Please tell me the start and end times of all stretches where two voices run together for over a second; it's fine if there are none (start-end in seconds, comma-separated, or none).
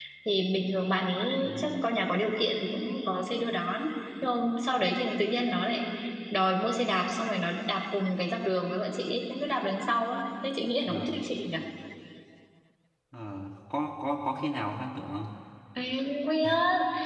none